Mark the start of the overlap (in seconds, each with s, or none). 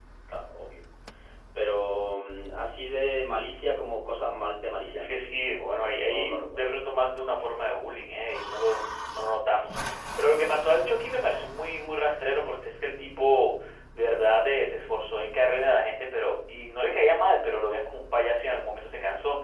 5.0 s